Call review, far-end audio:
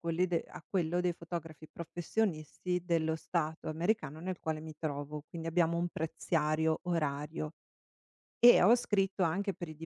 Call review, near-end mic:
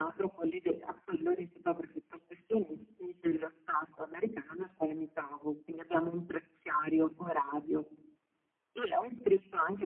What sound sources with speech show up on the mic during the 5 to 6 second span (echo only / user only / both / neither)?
echo only